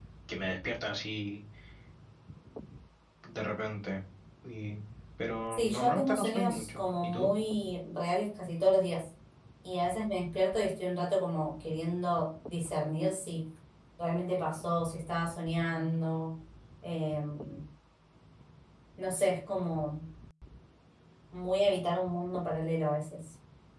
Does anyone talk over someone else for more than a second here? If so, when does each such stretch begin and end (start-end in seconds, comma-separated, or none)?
5.5-7.3